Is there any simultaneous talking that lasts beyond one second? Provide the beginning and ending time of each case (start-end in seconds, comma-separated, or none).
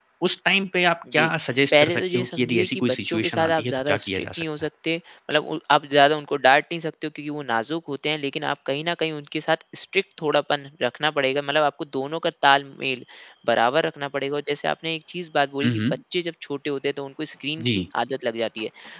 1.7-4.4